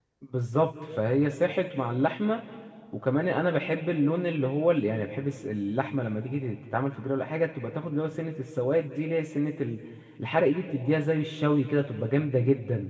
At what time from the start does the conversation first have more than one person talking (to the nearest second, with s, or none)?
none